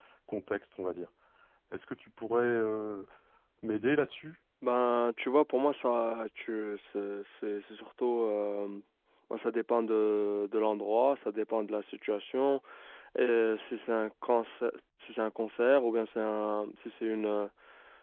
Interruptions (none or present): none